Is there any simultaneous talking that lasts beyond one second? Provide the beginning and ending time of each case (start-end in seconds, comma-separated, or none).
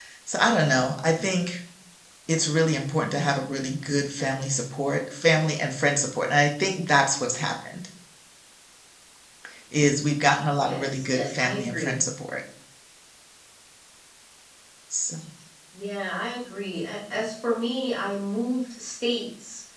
10.6-12.0